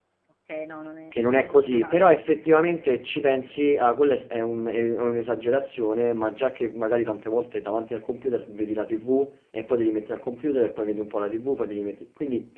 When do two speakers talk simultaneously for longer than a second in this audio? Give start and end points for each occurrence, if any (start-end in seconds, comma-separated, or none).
1.1-2.4